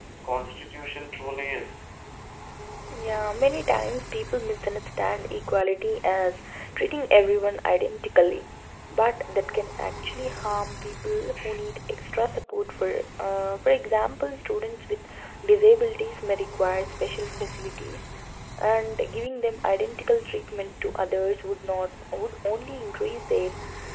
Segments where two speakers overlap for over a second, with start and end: none

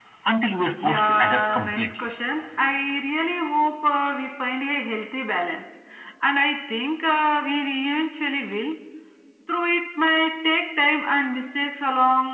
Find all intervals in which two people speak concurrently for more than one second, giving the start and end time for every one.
0.8-2.1

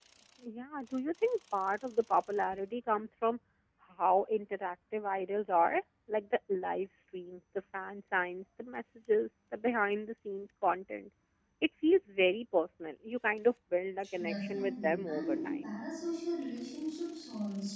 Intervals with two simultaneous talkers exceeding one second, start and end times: 14.1-15.6

